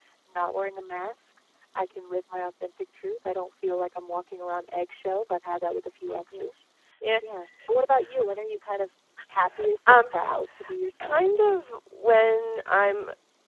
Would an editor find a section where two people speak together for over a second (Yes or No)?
No